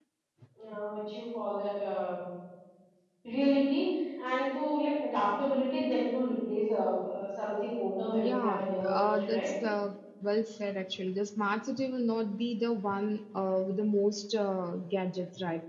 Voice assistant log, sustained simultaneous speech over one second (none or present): present